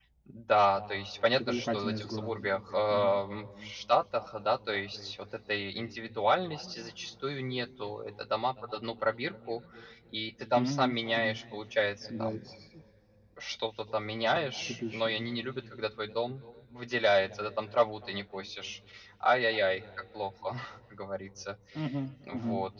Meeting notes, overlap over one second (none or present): present